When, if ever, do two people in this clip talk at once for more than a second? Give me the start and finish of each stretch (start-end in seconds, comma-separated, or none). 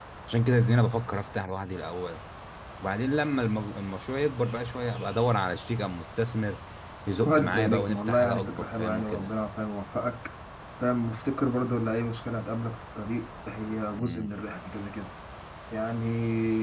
7.2-9.3